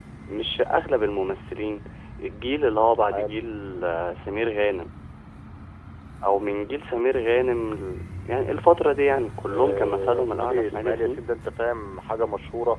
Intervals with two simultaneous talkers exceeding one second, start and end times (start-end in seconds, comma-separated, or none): 9.5-11.2